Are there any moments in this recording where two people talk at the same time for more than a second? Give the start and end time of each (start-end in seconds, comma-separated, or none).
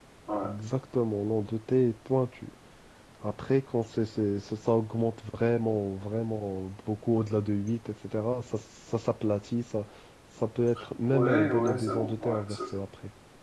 11.1-12.6